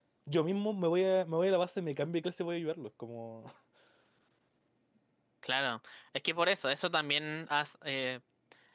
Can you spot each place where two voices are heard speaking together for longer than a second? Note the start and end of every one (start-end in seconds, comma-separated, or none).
none